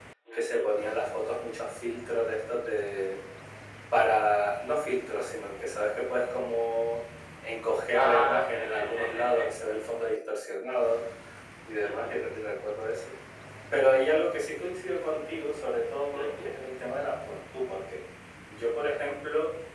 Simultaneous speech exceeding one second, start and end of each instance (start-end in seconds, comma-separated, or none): 7.9-9.5